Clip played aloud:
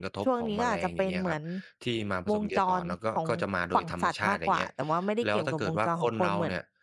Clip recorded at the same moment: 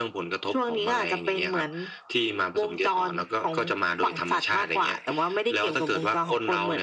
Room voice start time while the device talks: none

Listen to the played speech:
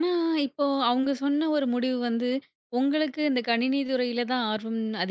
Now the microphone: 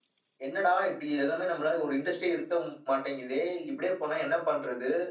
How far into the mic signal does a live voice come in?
0 s

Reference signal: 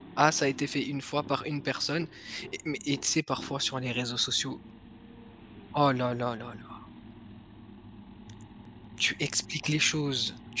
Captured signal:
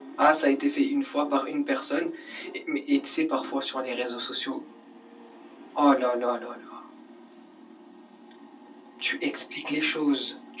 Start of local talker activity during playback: none

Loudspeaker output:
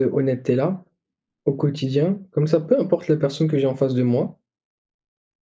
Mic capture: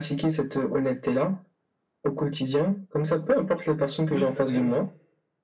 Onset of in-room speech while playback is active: 4 s

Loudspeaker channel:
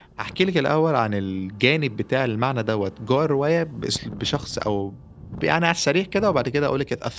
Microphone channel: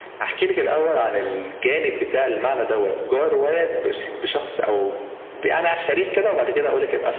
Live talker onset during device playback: none

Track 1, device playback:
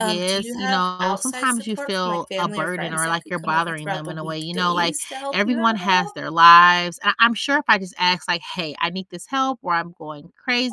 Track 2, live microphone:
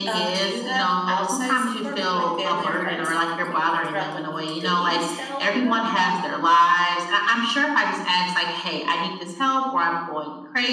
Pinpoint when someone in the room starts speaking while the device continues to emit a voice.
none

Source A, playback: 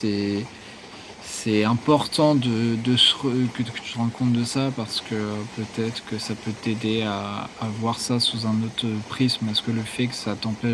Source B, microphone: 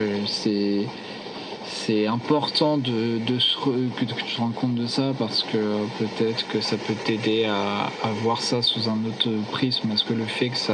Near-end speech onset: none

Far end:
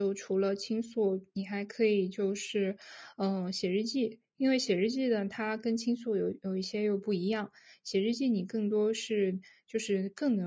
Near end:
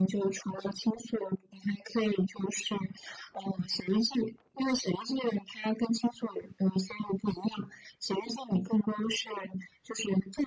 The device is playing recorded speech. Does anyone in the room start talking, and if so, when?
none

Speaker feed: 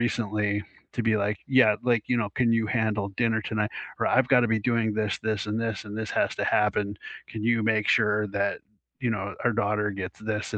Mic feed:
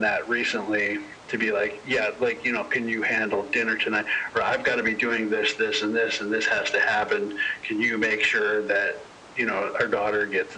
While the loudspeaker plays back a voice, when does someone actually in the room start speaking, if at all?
none

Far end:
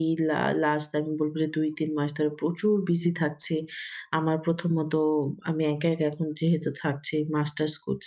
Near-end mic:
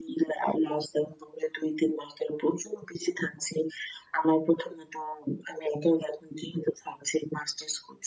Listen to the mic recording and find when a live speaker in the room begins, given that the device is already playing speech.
none

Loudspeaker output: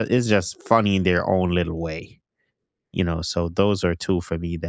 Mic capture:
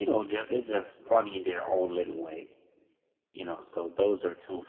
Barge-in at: none

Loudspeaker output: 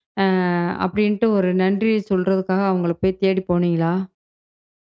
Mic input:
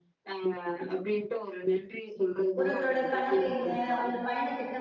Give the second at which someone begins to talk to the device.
3 s

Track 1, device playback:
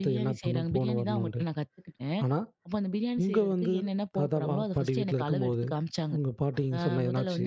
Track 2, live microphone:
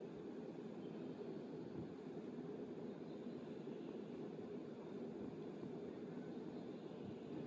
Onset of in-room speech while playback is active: none

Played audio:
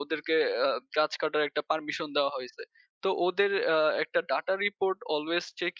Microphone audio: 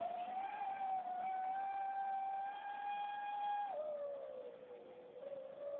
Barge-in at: none

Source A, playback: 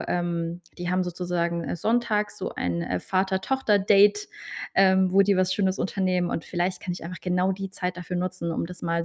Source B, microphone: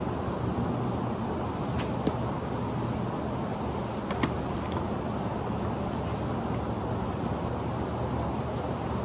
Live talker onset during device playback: none

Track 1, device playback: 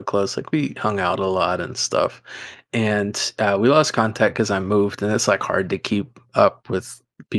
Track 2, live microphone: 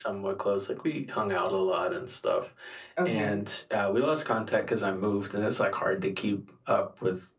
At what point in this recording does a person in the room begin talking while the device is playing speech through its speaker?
3 s

